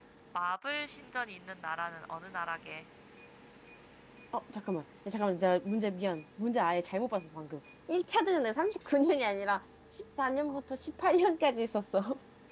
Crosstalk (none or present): none